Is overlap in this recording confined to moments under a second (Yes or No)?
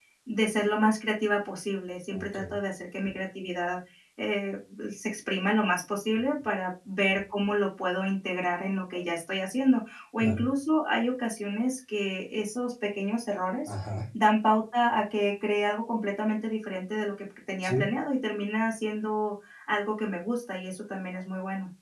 Yes